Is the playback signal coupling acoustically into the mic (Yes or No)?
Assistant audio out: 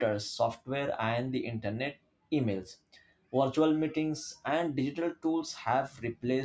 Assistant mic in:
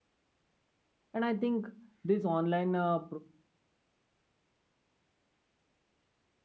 No